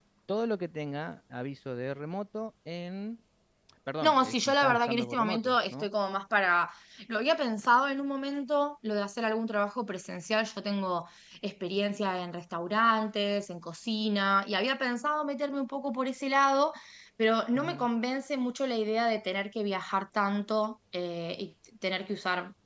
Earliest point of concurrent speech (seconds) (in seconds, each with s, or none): 4.0 s